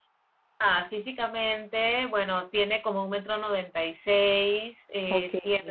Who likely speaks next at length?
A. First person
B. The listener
A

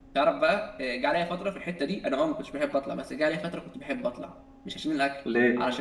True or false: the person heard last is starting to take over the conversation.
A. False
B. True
A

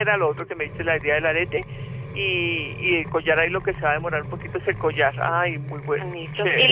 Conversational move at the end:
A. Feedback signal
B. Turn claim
B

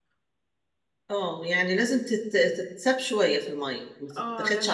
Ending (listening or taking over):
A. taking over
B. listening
A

